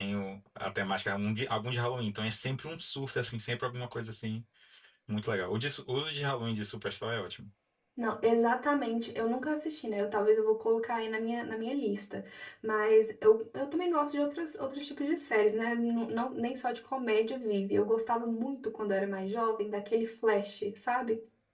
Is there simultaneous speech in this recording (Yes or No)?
No